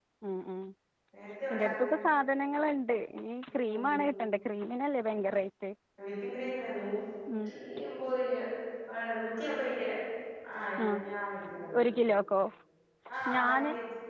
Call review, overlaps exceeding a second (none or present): none